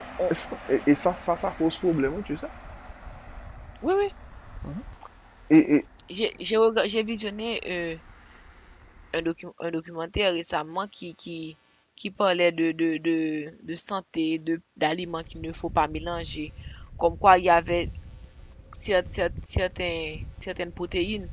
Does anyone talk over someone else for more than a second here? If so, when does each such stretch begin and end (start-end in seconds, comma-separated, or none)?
none